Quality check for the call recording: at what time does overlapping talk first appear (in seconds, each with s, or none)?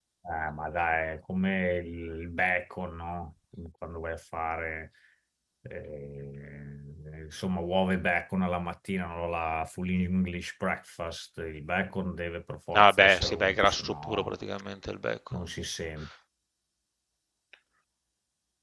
12.7 s